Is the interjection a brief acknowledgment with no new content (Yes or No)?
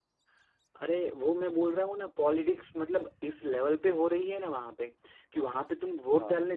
Yes